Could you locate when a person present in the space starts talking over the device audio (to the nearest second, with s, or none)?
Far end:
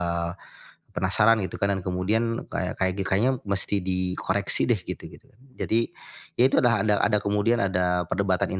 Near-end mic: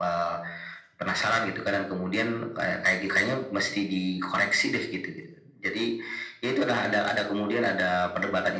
none